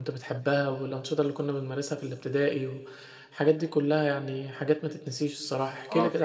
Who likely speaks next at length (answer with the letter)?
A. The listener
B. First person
A